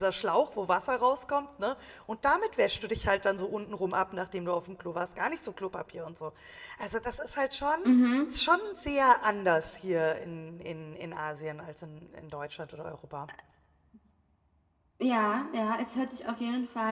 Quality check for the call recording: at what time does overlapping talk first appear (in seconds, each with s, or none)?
none